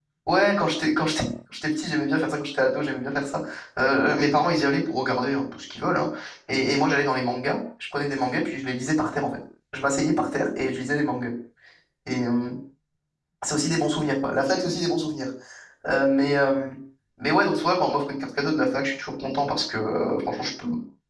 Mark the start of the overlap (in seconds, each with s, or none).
none